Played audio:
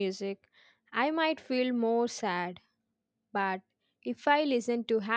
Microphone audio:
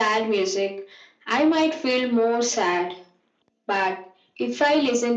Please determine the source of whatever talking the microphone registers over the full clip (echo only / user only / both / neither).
echo only